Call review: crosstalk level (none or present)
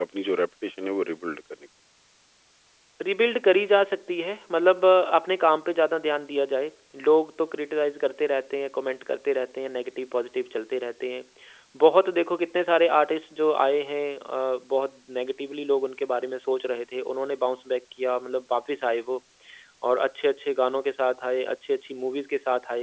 none